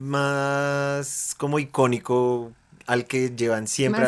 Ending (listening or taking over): listening